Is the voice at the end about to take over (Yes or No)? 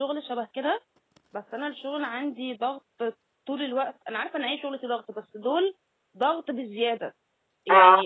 No